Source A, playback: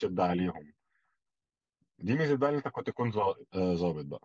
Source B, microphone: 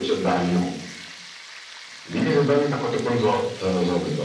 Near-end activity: none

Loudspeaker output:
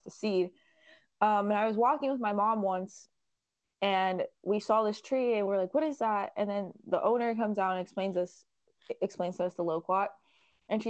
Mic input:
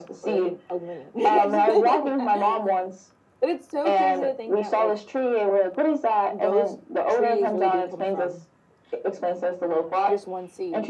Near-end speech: present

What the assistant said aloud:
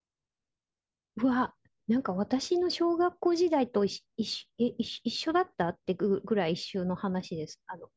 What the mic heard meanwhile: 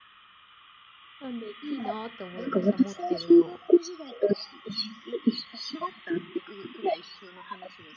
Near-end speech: present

